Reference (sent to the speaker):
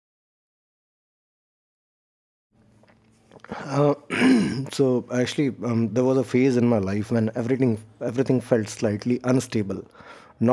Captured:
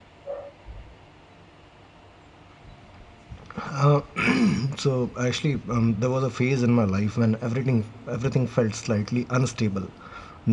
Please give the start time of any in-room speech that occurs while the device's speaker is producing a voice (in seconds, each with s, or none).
none